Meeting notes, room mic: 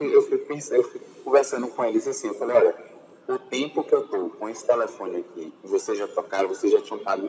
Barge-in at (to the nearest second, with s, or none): none